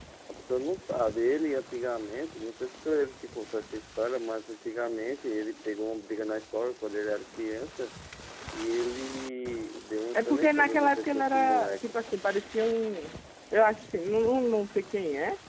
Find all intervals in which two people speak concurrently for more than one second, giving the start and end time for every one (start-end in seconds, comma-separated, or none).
10.1-12.0